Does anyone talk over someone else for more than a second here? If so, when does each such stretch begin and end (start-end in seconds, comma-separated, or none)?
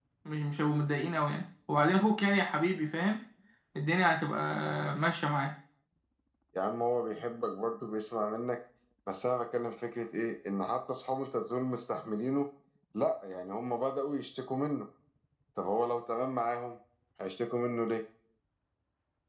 none